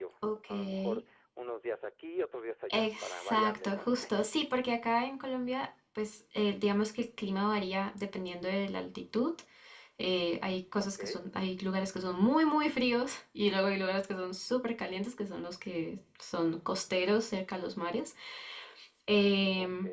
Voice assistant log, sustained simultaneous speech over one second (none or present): present